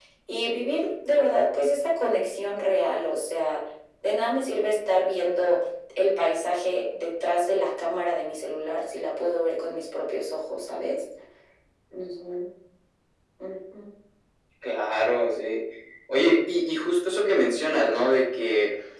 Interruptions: none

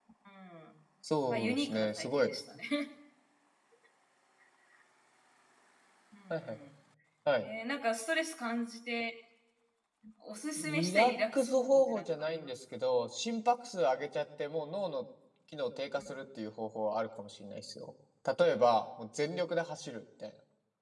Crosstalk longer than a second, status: present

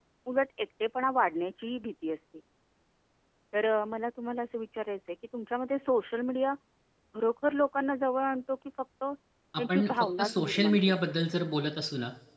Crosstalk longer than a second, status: present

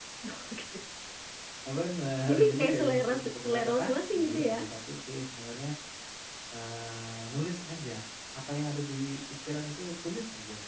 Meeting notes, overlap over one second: present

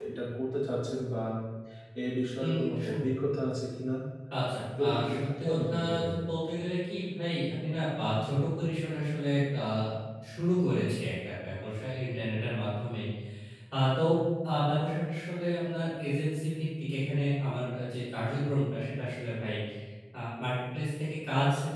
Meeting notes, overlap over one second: present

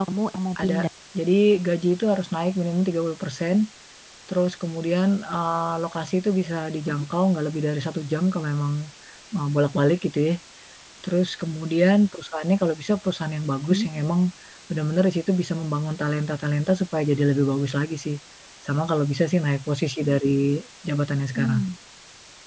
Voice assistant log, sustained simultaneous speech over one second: none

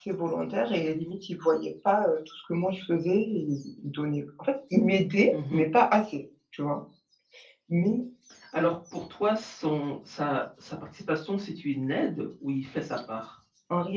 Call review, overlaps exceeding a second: none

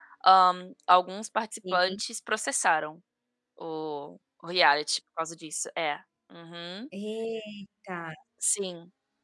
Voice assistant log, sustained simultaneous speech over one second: none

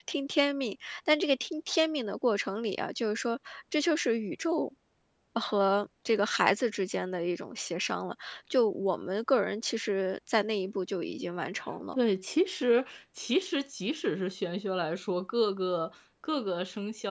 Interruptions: none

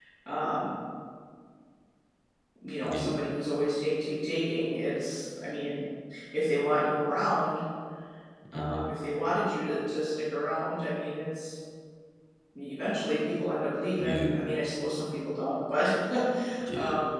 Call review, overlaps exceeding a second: none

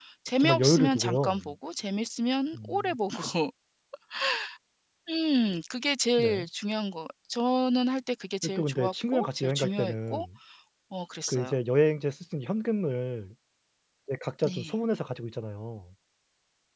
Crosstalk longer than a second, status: present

